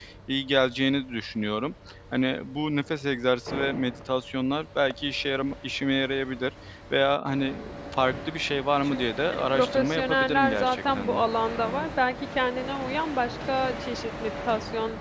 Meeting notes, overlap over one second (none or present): present